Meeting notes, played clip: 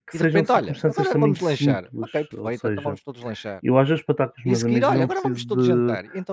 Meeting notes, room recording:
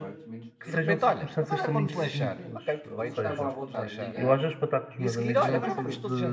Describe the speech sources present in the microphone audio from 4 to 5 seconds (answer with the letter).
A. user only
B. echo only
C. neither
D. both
D